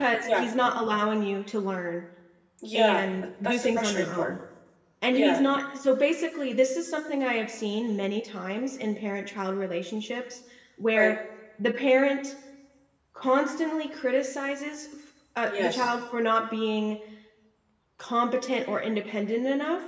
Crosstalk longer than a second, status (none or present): present